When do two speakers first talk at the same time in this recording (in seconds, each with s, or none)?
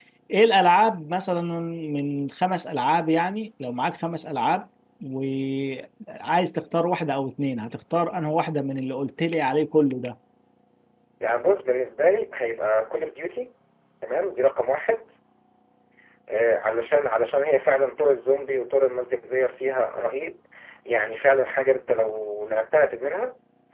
none